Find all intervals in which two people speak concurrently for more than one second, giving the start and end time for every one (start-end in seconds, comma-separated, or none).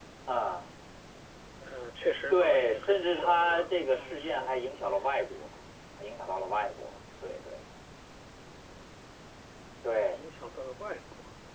2.3-4.5